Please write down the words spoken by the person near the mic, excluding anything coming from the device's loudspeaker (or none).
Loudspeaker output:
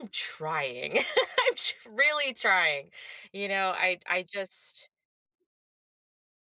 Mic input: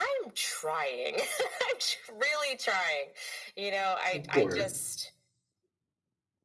Of course.